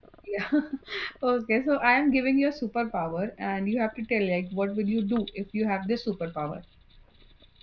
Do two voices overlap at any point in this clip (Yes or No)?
No